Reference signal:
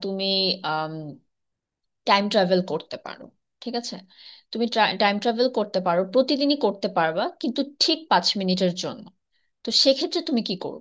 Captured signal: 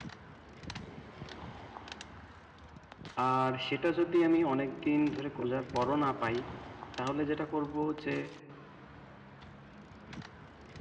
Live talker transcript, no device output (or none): আর সেটা যদি আমি অনেক দিন ধরে খোঁজার পরও না পাই তাহলে যেটা করব যে